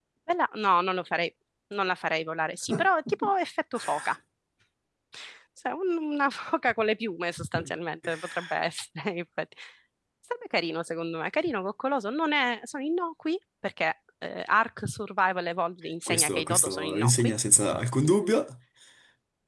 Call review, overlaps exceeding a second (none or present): present